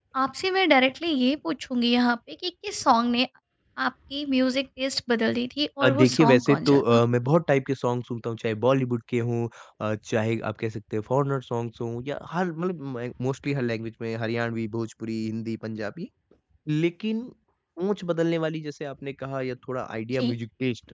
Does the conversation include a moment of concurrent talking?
Yes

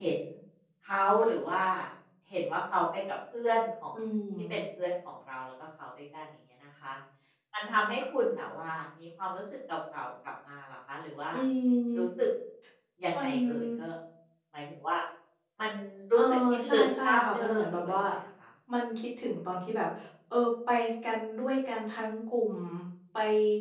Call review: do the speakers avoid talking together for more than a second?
No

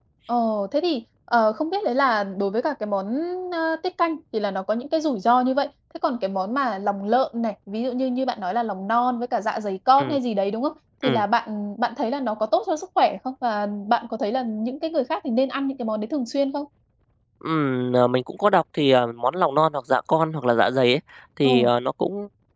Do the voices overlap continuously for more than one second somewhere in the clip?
No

